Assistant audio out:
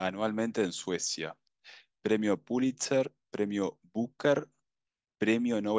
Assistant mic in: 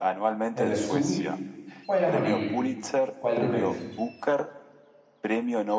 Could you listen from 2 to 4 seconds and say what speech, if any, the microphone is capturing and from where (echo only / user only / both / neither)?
both